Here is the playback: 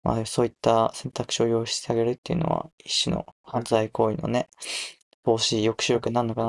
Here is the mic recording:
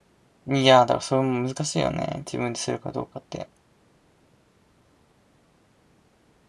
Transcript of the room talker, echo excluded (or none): うん。いや、だからそれも難しいよね。自分でするかどうかって。